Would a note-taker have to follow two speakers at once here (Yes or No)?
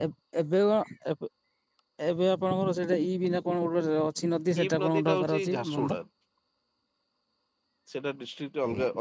Yes